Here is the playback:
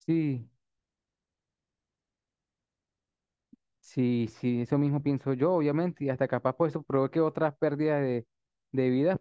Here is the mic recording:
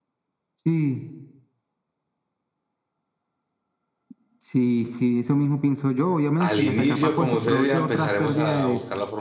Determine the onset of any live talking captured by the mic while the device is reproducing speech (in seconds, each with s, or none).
6.4 s